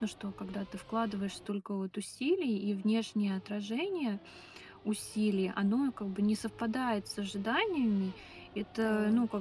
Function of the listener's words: listening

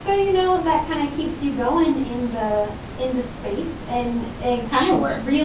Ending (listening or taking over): listening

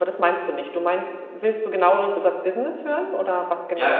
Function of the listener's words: taking over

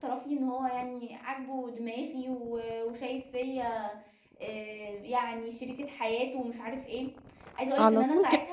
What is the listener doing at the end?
taking over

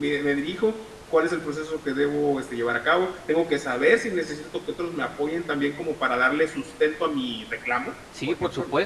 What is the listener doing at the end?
taking over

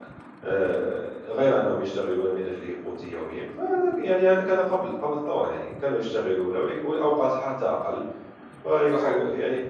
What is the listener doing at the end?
listening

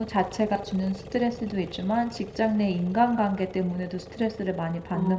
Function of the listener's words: taking over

